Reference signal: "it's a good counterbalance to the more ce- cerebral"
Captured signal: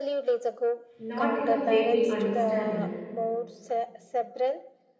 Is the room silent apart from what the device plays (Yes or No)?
No